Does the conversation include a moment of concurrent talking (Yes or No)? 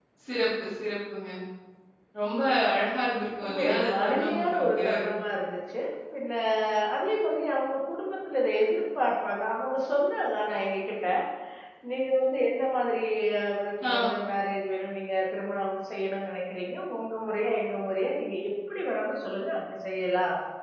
Yes